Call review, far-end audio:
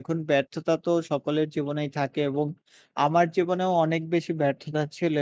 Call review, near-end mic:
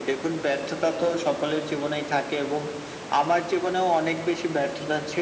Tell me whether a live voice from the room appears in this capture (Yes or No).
No